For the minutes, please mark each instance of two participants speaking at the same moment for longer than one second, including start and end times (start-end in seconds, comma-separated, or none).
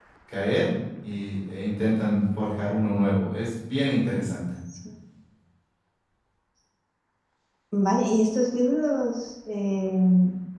none